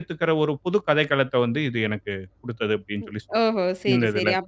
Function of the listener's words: taking over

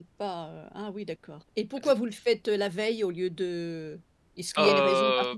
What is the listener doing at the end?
taking over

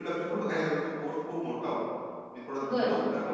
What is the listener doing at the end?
taking over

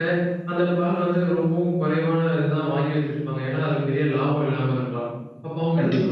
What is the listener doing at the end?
listening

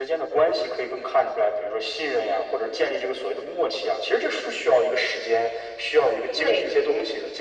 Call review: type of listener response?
listening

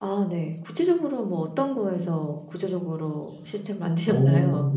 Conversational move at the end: taking over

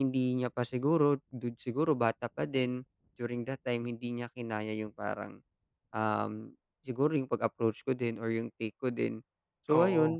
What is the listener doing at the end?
listening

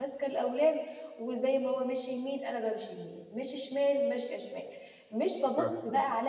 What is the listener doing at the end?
listening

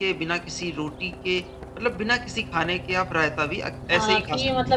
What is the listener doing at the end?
taking over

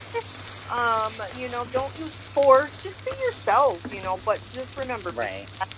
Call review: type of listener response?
listening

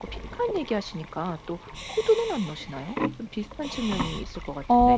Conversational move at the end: taking over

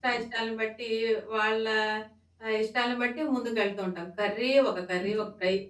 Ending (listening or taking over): listening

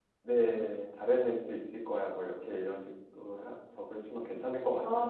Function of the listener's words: taking over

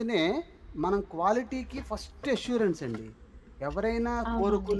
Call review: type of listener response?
listening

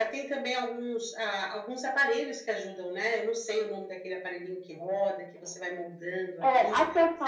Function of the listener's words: taking over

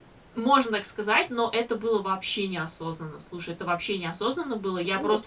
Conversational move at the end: listening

